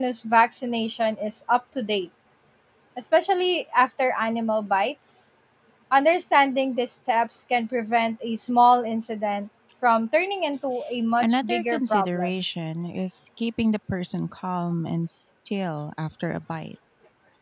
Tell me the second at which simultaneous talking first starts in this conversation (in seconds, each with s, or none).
11.2 s